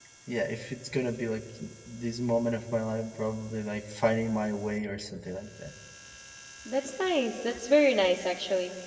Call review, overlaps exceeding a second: none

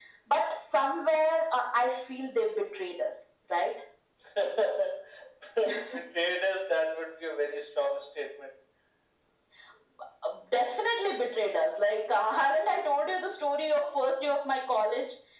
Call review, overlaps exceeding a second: none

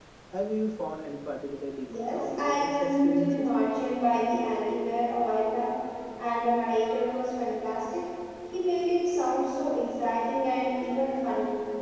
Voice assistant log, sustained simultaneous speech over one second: present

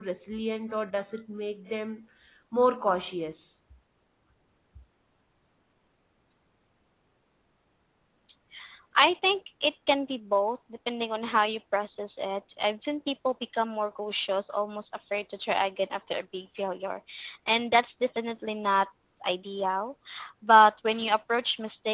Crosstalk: none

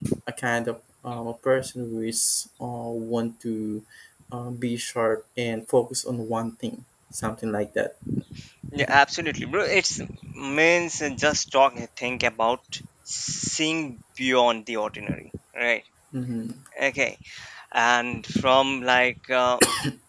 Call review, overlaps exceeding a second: none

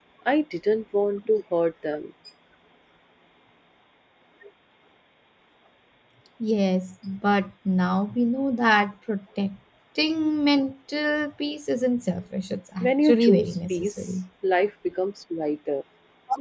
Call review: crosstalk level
present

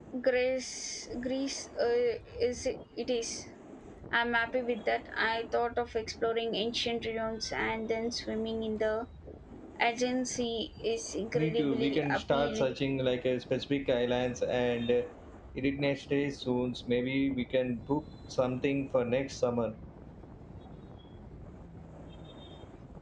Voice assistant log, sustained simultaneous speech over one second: present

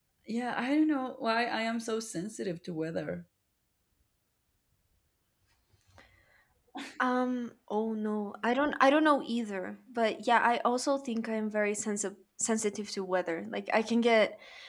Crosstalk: none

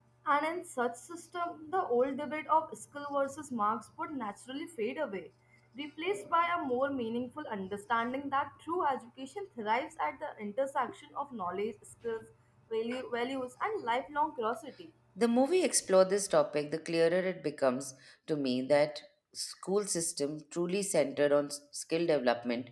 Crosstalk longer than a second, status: none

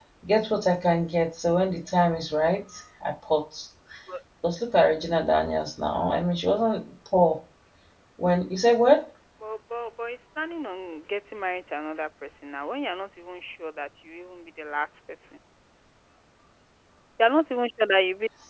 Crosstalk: none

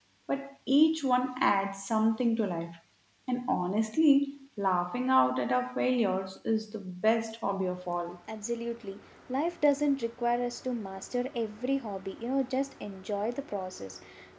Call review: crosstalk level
none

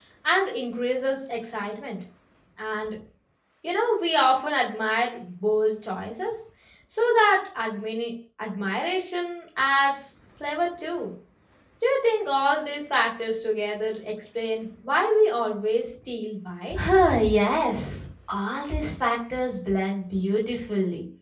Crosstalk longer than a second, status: none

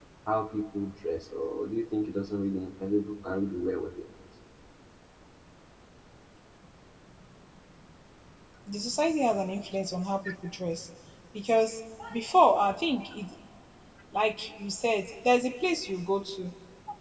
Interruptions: none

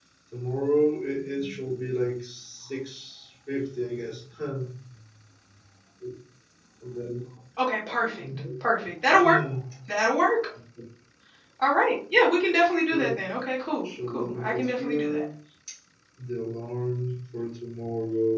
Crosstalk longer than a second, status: present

